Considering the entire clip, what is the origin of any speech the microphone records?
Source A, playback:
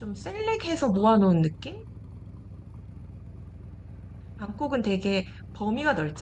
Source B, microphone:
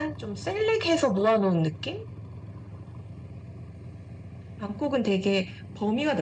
echo only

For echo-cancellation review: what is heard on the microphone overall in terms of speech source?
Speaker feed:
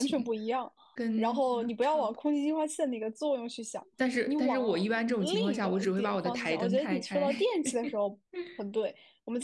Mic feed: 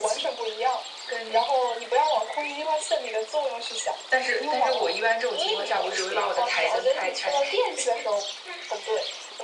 echo only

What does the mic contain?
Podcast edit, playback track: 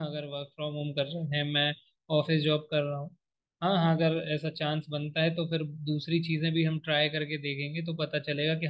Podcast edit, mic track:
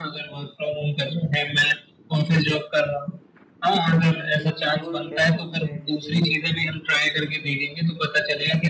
both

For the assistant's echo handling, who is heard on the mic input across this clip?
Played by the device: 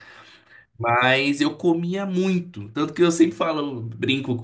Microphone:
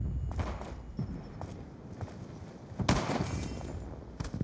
neither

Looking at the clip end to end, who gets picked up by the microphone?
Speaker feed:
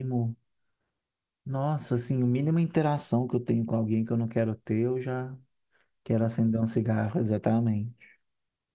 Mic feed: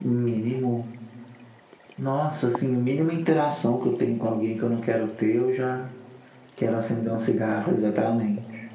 echo only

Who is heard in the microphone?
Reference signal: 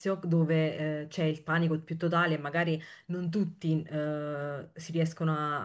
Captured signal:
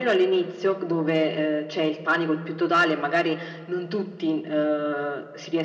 echo only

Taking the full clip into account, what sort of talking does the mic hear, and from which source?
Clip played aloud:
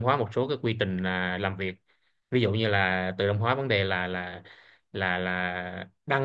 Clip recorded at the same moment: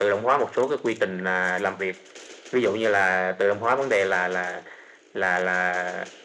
echo only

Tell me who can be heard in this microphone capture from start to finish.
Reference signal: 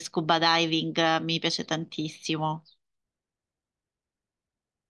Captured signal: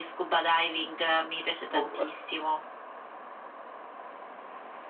both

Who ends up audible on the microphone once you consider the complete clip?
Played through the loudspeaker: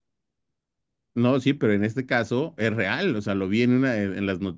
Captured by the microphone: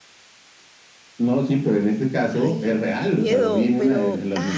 both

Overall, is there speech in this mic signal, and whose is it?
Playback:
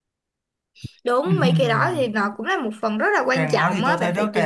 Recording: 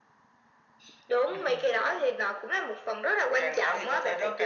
echo only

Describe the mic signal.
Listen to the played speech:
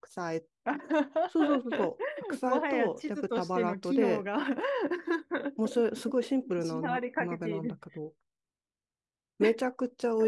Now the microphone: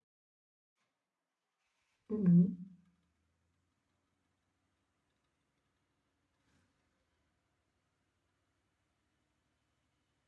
user only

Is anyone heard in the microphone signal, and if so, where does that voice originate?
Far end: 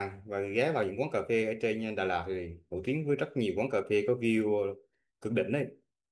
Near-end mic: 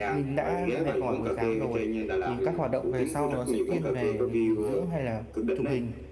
both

